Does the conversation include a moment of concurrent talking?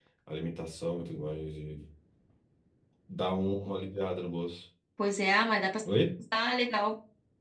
No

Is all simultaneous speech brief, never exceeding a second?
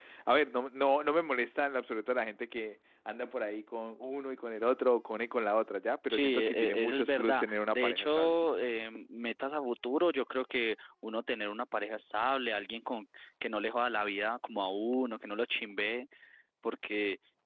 No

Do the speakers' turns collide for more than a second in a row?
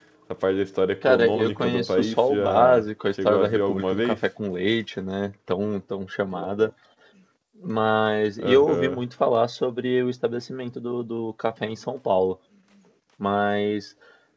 Yes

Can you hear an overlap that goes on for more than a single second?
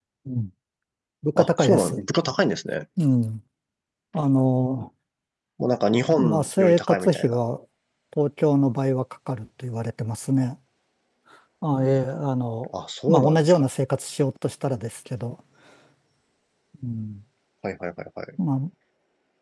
Yes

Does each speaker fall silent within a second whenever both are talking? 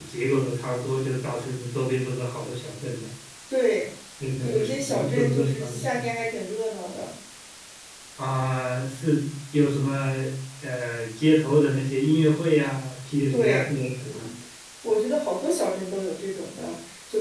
No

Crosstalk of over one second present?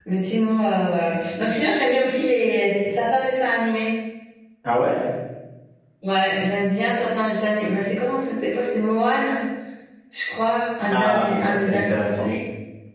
Yes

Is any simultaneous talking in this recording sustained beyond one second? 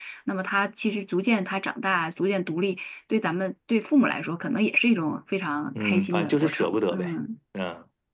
Yes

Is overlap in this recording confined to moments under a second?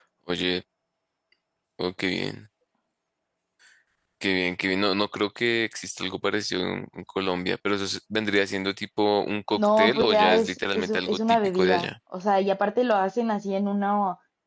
No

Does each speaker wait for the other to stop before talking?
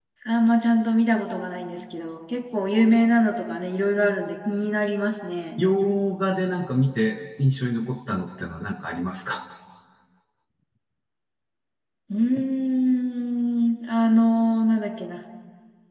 Yes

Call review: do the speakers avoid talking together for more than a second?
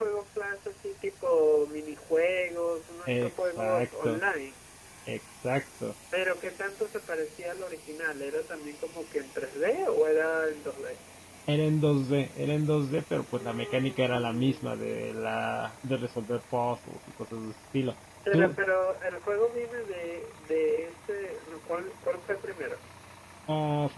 No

